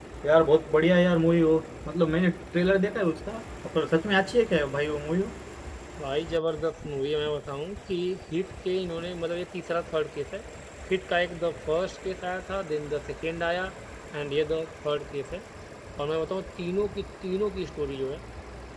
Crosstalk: none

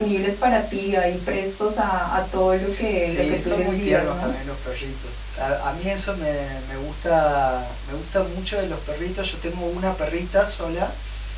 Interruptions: present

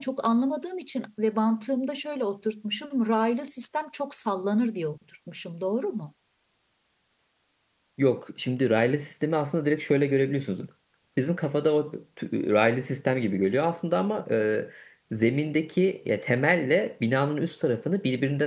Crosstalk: none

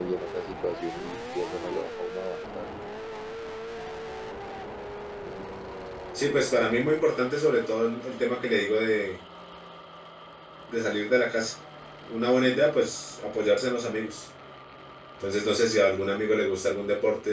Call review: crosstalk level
none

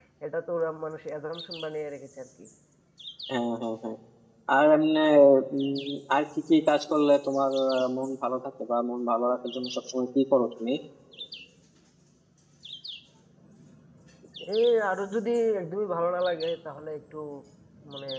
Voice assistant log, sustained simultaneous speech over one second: none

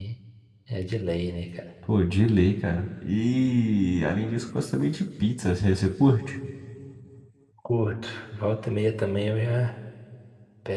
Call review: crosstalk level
none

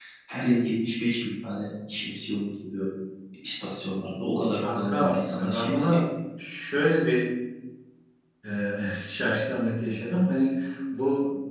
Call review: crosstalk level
present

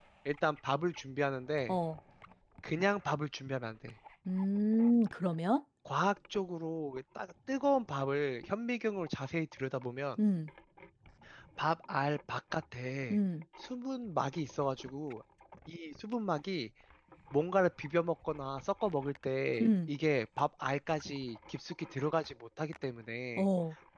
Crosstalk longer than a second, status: none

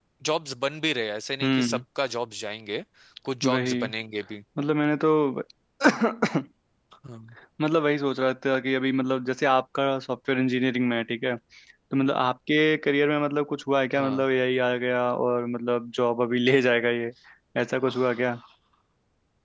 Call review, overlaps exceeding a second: none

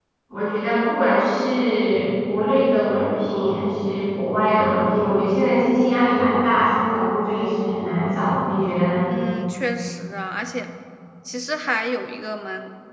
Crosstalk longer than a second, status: none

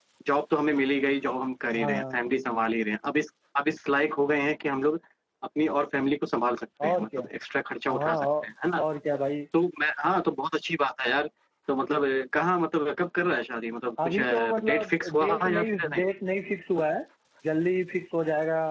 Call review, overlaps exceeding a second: present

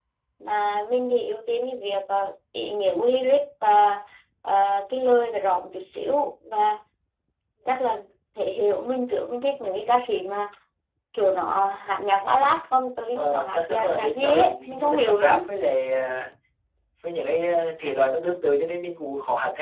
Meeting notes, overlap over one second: present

